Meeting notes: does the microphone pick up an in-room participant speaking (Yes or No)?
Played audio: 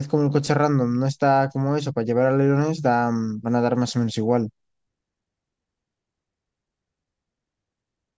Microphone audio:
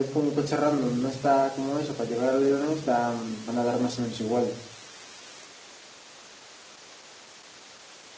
No